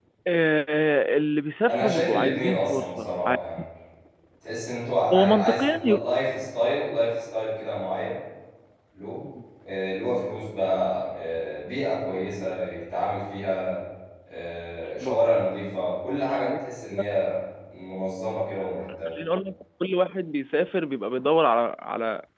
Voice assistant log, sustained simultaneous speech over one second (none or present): present